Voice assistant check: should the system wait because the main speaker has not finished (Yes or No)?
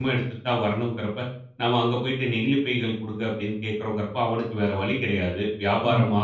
Yes